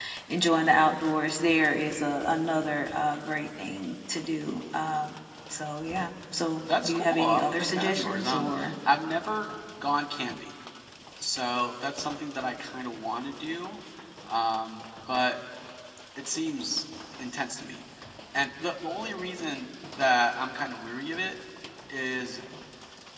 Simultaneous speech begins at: 6.6 s

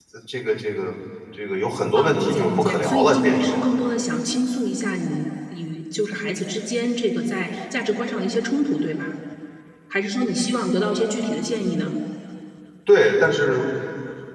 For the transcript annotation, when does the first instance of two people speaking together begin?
1.9 s

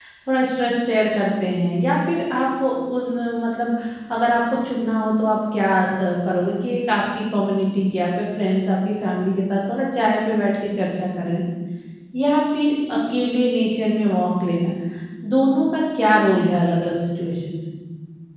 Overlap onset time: none

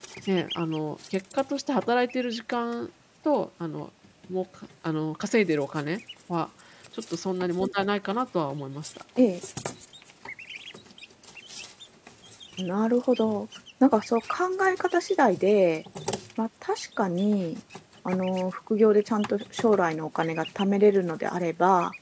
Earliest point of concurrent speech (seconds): none

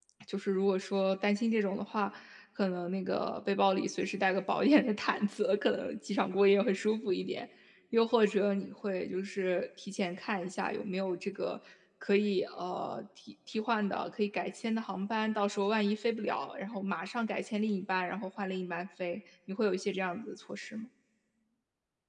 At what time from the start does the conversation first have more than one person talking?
none

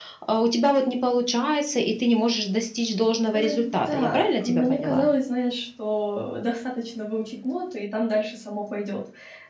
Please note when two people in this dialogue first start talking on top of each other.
3.3 s

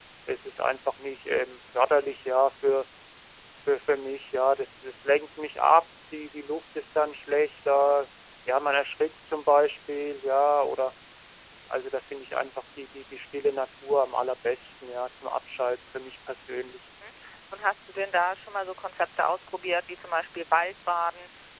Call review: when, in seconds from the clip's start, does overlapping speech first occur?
none

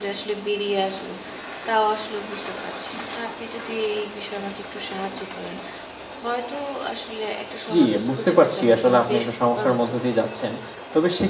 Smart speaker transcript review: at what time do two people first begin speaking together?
7.7 s

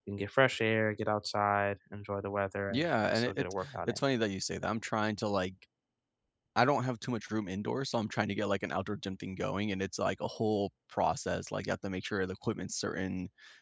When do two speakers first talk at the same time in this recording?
2.7 s

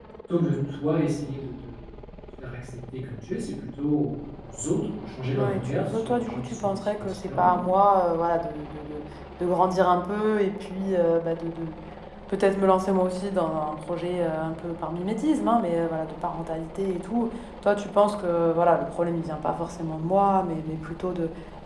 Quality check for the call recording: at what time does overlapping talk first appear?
5.3 s

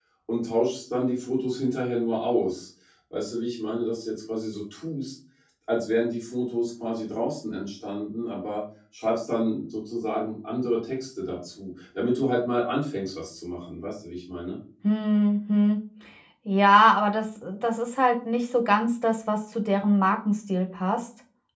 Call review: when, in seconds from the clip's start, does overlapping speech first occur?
none

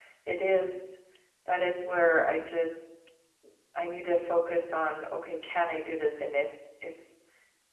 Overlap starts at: none

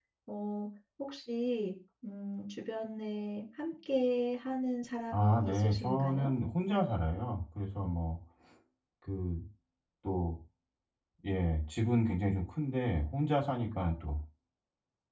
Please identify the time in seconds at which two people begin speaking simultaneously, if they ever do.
5.1 s

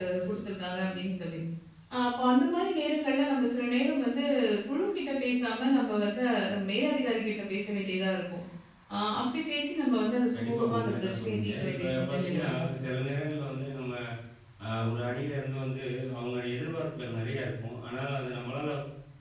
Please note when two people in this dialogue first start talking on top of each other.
10.3 s

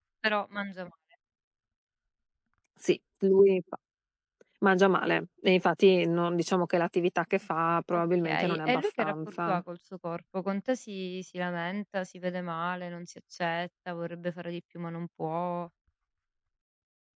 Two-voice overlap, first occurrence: 7.9 s

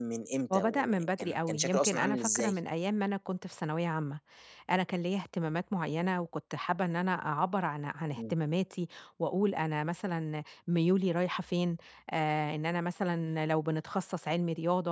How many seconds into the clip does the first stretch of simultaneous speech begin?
0.5 s

